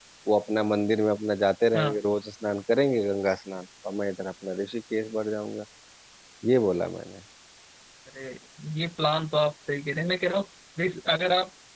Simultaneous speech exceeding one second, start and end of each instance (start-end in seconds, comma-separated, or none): none